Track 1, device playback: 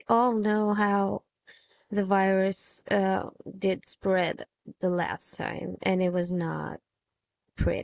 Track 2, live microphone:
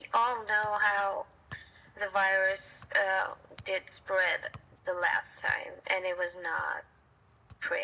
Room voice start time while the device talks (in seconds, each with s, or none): none